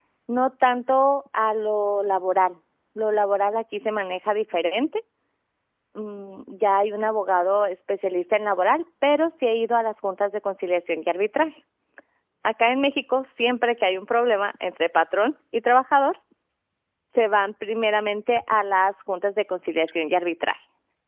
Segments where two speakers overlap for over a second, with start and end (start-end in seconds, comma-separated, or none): none